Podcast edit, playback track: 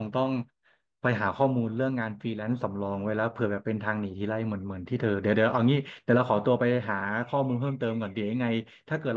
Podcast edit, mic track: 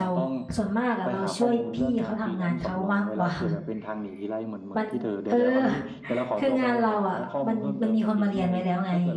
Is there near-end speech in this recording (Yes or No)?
Yes